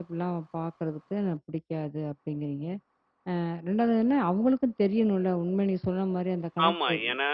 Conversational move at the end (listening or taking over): taking over